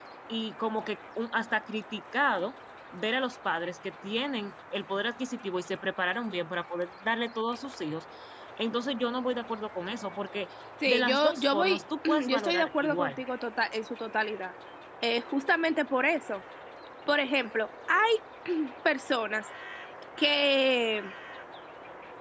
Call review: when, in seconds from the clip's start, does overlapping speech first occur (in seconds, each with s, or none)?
10.9 s